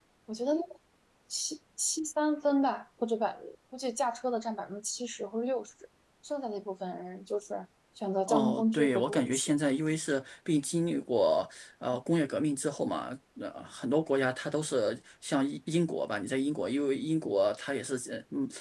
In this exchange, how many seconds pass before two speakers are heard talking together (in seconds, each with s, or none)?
8.3 s